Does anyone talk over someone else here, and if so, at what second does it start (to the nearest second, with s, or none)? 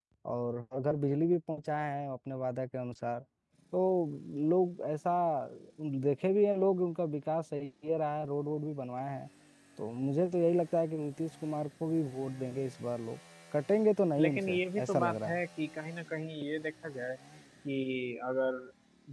14 s